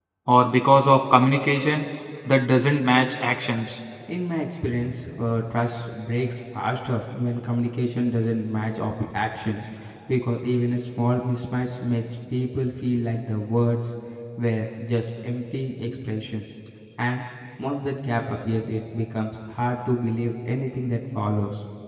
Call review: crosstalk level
none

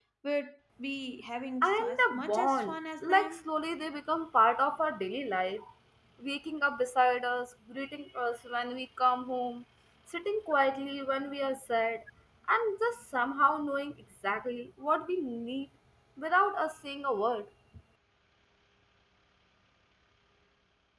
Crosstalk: present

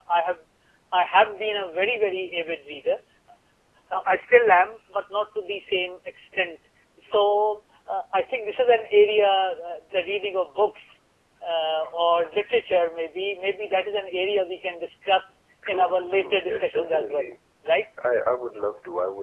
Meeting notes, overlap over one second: present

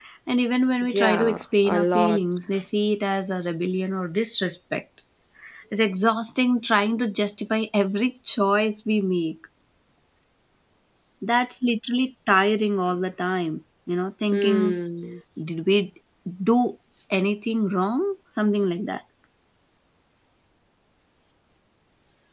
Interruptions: present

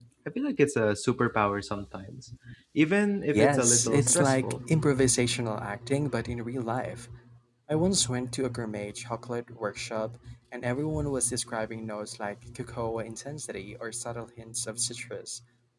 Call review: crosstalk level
present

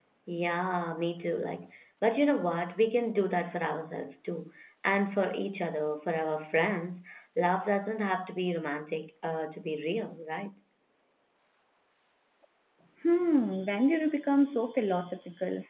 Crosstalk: none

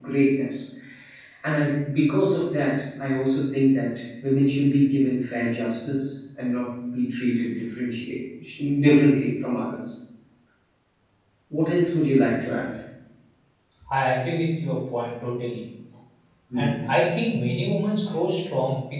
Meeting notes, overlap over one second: none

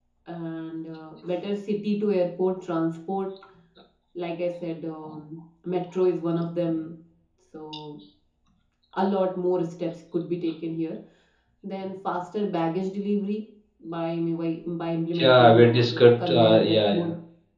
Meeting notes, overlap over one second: present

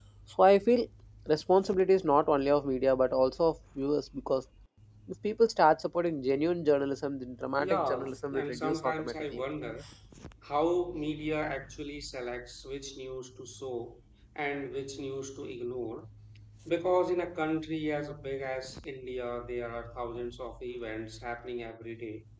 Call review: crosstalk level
present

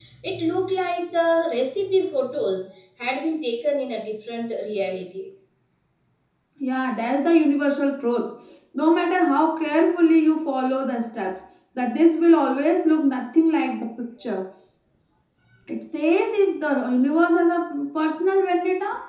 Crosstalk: none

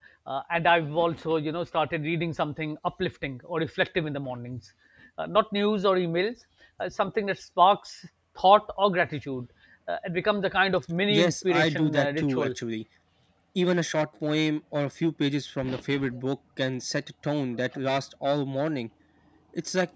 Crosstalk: present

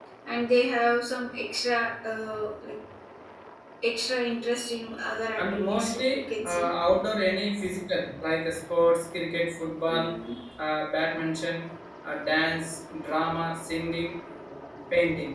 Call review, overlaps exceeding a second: present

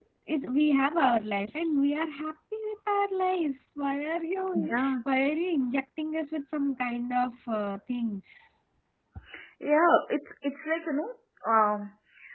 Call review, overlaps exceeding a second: none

